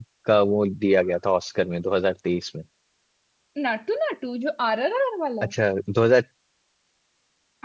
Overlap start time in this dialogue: none

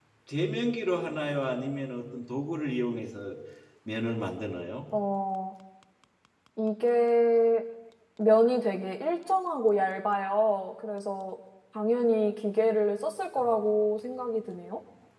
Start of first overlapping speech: none

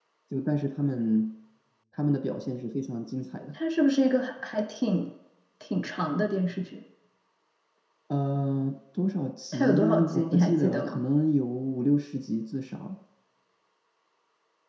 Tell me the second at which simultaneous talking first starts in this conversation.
9.5 s

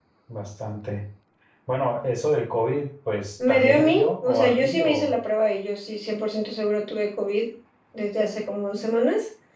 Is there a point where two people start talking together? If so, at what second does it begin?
3.4 s

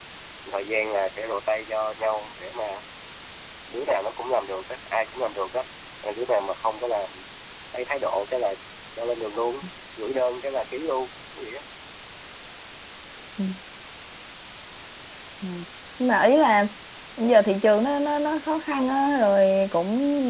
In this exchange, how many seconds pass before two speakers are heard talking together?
none

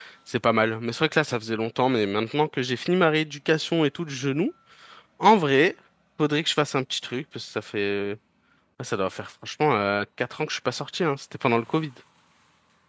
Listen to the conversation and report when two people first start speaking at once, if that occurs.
none

